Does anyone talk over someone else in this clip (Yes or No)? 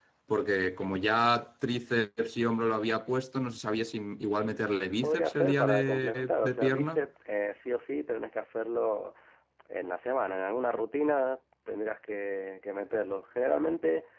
Yes